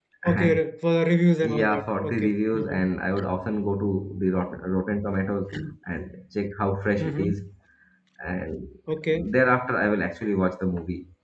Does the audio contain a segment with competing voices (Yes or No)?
Yes